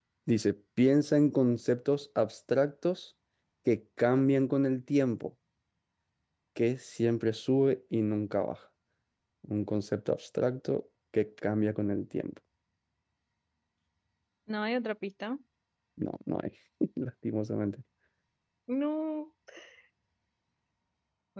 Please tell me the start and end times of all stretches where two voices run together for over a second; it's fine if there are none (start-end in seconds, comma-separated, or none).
none